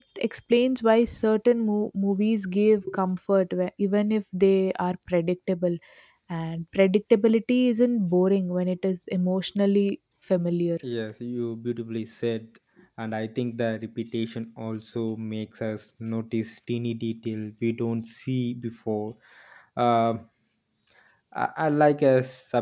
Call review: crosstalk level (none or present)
none